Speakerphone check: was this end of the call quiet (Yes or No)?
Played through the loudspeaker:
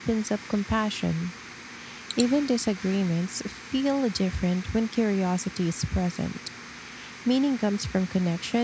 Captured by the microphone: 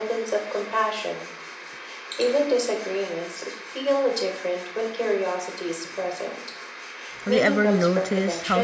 No